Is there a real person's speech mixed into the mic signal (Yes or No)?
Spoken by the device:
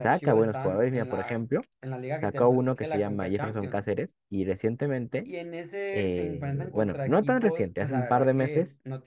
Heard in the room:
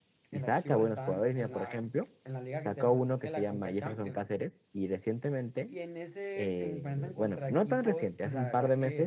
No